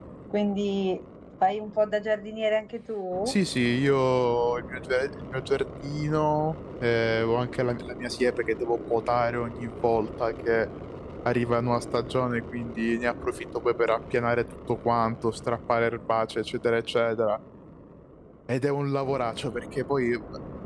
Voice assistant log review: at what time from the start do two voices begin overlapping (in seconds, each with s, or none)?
none